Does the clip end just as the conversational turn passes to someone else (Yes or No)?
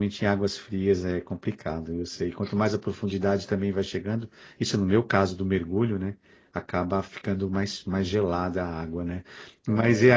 No